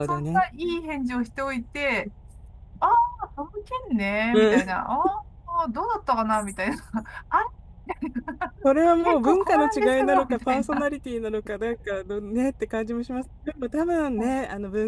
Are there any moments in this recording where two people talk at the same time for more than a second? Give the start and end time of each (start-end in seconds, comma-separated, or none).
9.1-10.8